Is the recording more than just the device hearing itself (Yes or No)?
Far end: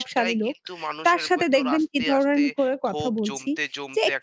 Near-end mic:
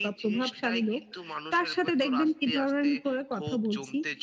No